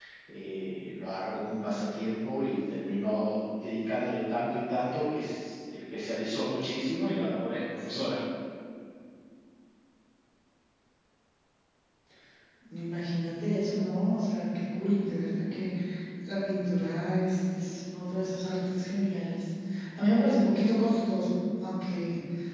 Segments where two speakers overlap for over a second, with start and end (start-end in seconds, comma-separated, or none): none